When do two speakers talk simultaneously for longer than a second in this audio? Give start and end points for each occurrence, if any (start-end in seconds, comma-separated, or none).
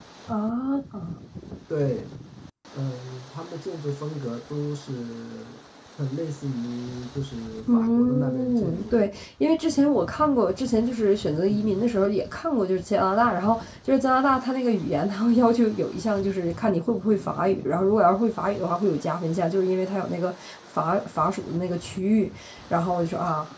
7.7-9.0